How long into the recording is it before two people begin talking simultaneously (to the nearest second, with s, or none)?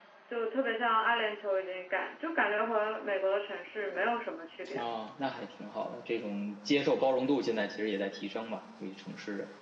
none